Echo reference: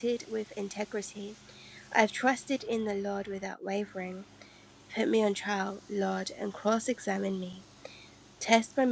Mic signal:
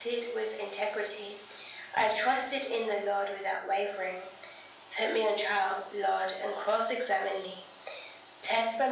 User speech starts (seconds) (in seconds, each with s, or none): none